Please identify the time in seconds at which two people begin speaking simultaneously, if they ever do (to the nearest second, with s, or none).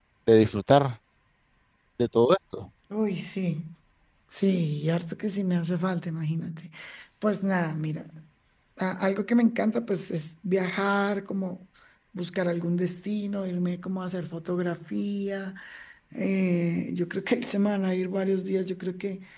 none